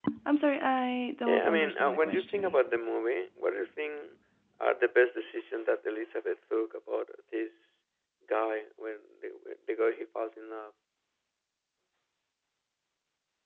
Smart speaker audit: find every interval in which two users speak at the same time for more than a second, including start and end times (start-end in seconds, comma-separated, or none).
1.3-2.6